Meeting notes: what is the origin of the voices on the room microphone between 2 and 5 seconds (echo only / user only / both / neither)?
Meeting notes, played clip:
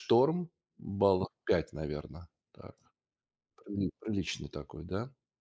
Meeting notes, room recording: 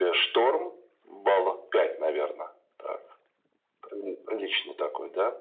echo only